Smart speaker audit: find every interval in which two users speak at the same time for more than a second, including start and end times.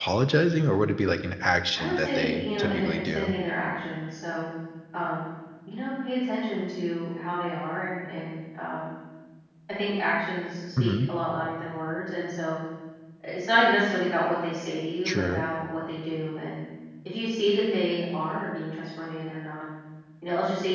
1.8-3.3

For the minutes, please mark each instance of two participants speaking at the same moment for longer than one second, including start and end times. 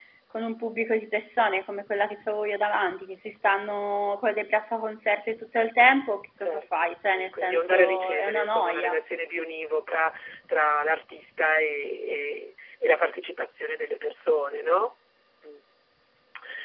6.4-9.0

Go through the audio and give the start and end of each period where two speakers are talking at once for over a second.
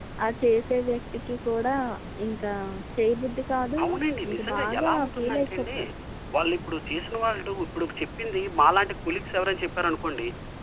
4.3-5.7

